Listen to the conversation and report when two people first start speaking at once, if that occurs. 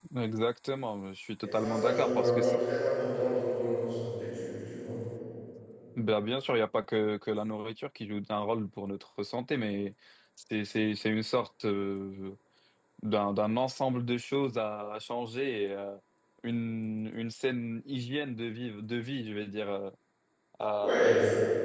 1 s

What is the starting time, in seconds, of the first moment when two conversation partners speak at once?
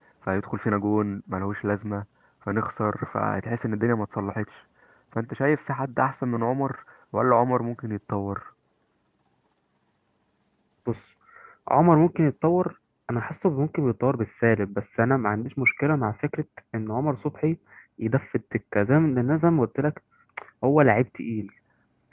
none

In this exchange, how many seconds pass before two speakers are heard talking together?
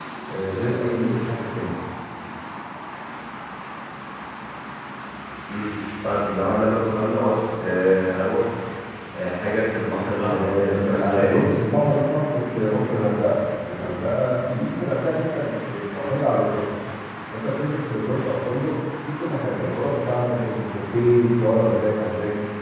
10 s

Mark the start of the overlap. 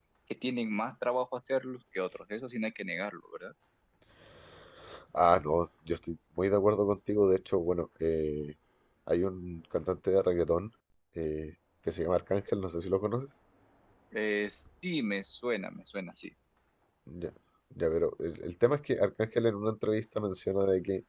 none

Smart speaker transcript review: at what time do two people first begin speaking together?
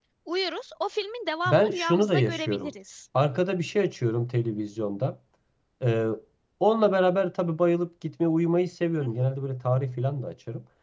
1 s

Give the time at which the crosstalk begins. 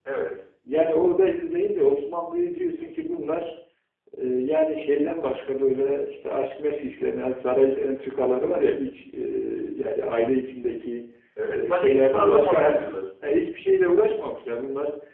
12 s

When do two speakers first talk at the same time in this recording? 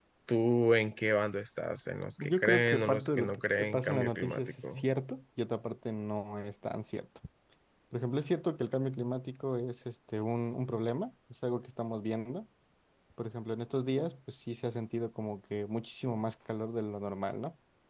2 s

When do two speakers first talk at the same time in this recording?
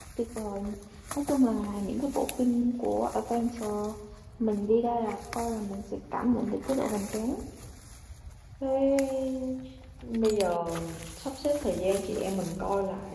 none

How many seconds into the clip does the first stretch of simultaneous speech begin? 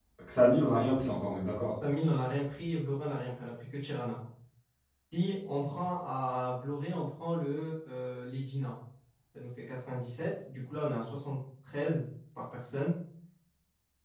none

